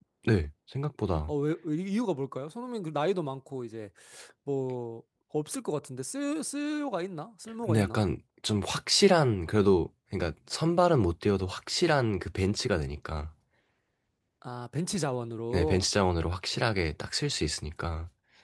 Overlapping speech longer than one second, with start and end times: none

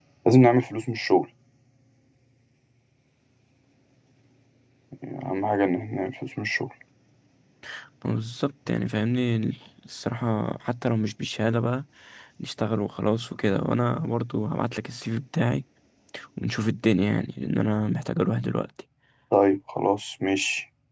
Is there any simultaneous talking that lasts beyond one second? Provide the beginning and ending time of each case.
none

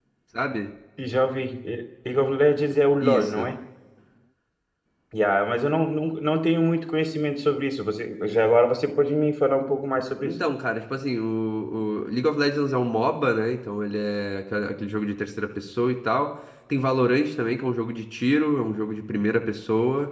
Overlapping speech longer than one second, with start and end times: none

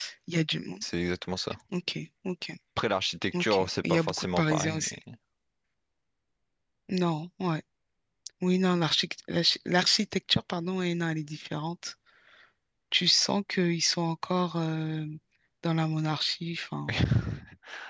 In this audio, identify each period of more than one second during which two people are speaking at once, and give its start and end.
3.4-5.0

